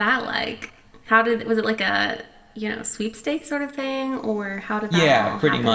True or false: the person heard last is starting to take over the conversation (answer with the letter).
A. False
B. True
B